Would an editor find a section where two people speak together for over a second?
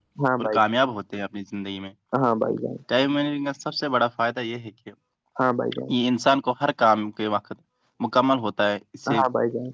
No

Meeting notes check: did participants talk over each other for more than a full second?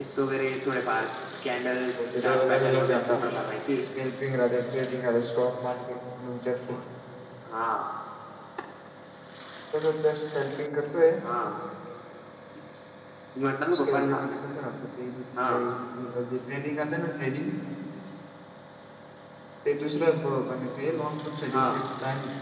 Yes, from 2.0 s

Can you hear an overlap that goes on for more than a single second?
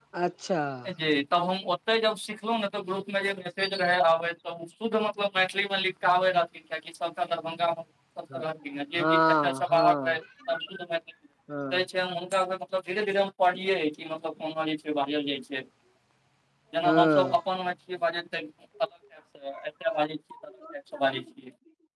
Yes, from 9.0 s

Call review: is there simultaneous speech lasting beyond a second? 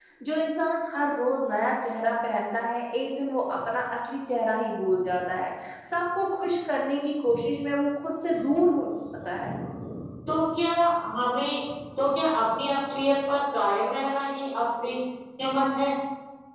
No

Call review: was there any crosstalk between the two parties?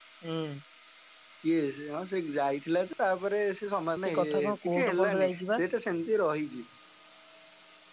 Yes, from 4.0 s

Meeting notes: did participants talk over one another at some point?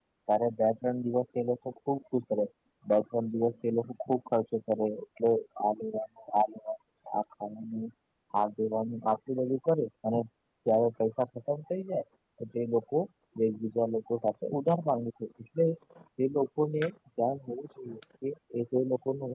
No

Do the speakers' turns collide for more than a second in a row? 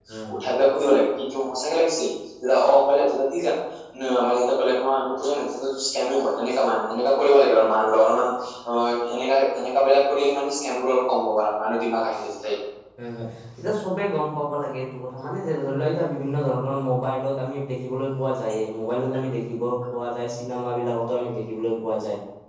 No

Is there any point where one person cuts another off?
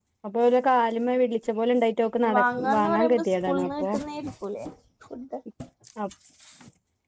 Yes, from 2.2 s

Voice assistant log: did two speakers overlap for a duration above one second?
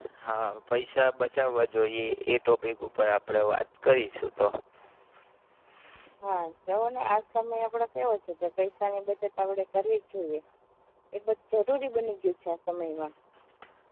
No

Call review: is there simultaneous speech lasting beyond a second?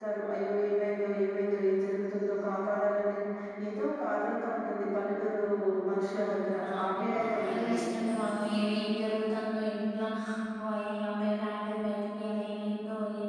Yes, from 6.2 s

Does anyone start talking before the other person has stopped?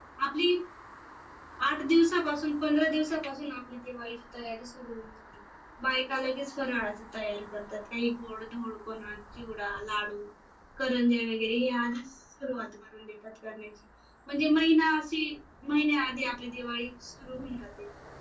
No

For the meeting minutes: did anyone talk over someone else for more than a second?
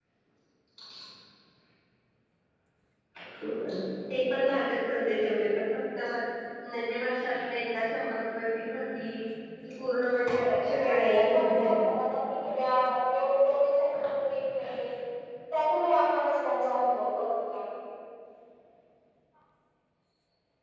Yes, from 10.3 s

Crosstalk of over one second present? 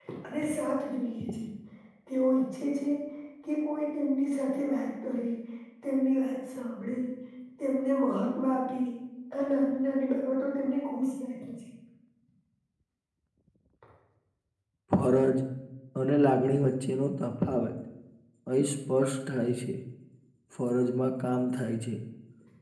No

